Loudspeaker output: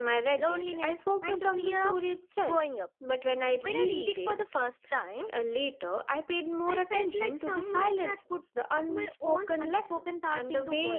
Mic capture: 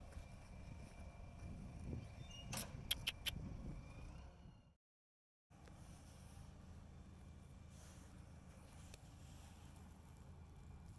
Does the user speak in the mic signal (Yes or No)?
No